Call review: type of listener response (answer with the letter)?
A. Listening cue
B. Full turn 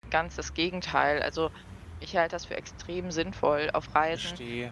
A